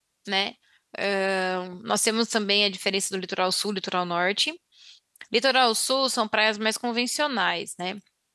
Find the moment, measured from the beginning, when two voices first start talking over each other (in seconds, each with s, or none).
none